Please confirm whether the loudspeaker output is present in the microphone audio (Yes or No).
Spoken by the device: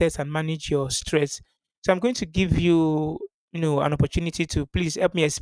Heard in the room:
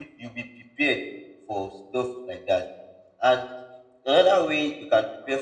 No